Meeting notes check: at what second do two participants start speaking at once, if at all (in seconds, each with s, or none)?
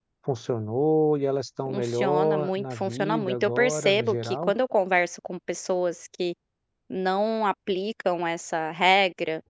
1.7 s